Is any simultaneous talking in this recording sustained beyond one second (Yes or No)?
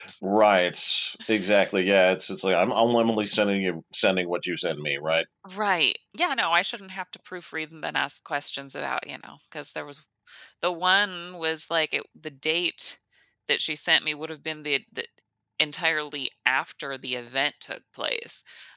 No